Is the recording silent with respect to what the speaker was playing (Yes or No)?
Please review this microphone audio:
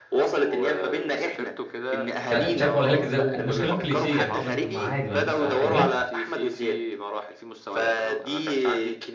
No